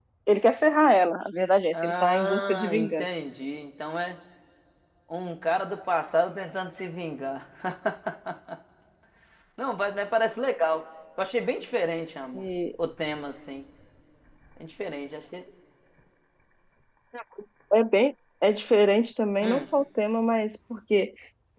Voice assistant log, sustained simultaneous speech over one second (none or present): present